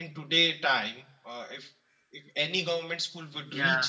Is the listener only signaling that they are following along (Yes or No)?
Yes